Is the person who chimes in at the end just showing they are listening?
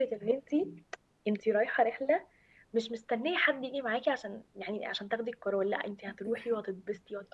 Yes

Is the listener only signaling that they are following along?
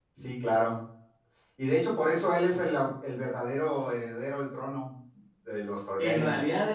No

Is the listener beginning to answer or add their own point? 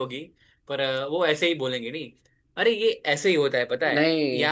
No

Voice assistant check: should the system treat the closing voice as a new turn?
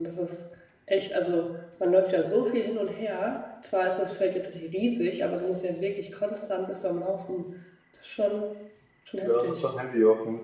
Yes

